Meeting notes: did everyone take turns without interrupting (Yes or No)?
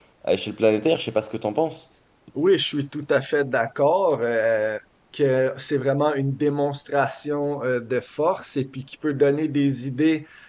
Yes